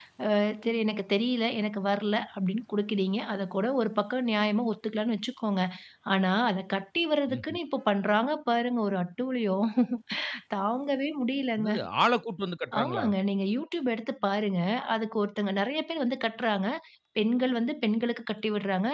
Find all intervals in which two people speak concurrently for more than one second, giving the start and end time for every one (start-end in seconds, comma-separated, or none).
none